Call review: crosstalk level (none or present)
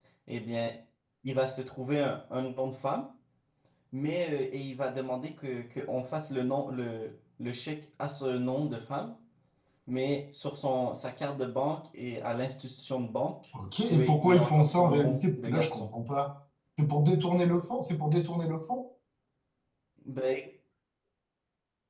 present